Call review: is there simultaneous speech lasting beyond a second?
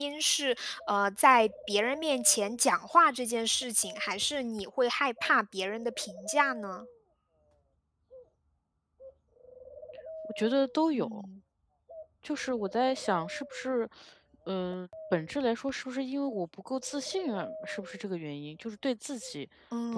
No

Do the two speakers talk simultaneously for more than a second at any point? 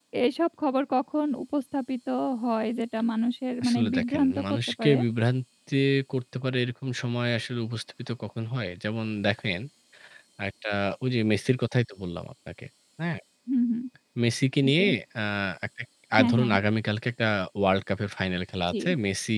Yes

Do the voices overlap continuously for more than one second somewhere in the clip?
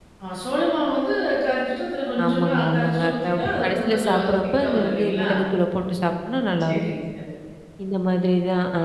Yes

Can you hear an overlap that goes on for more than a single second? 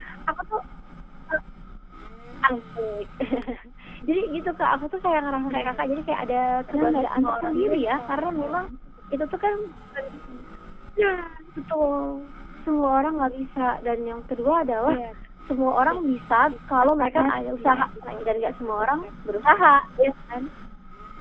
Yes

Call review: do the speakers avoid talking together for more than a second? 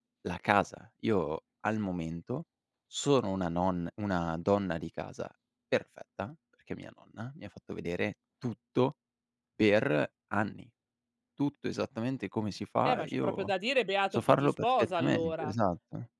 No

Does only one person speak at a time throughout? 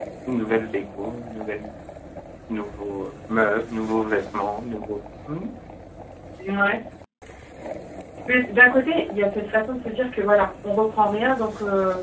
Yes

